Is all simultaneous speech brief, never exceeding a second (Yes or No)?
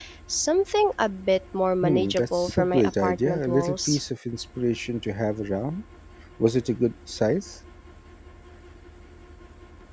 No